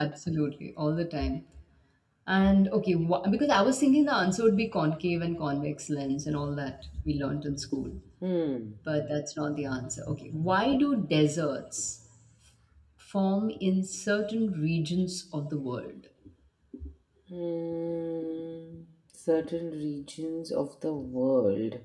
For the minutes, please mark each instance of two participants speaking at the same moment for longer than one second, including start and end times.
none

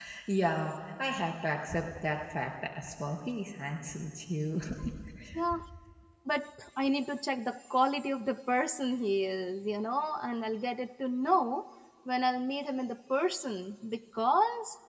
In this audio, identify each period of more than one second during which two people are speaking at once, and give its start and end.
none

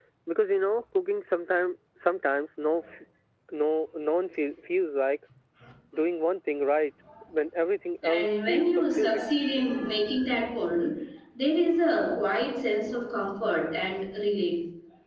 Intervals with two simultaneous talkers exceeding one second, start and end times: 8.0-9.2

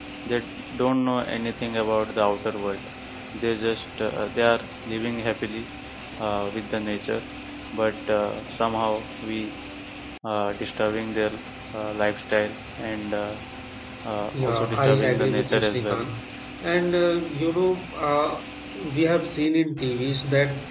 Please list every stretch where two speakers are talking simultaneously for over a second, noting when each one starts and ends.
14.3-16.1

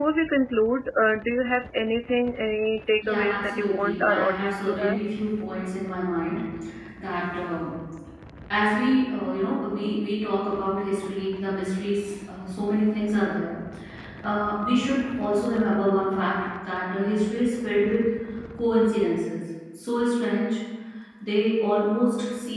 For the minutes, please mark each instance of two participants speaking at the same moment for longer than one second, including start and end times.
3.0-5.0

